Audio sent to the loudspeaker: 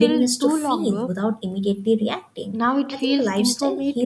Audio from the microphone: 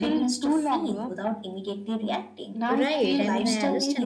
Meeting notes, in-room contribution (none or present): present